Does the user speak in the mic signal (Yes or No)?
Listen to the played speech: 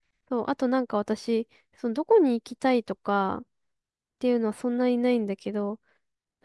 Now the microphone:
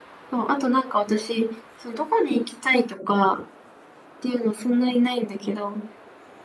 No